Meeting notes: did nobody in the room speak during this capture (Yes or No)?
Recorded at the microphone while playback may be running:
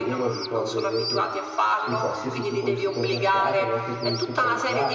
No